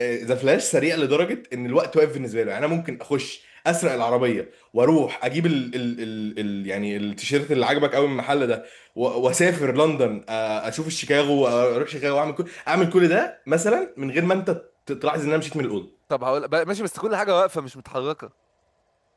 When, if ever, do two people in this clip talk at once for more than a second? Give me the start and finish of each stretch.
none

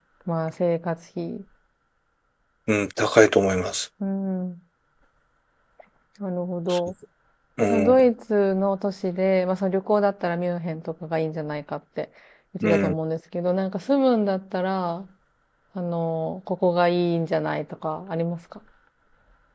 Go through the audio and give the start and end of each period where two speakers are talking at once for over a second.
none

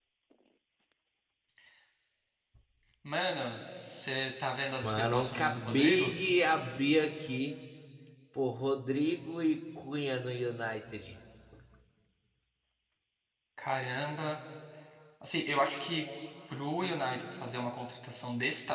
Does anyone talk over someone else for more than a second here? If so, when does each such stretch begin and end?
4.8-6.1

